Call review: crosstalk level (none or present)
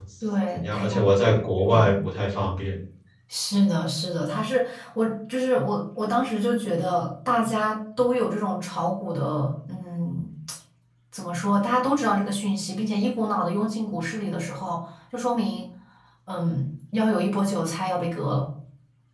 present